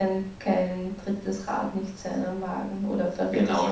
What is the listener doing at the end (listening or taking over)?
taking over